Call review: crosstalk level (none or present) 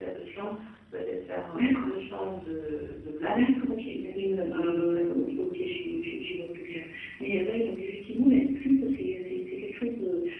present